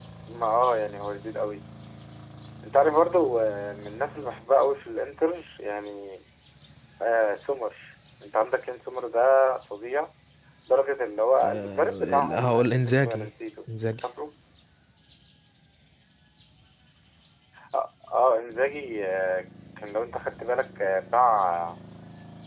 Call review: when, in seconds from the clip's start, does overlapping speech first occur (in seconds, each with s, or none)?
11.4 s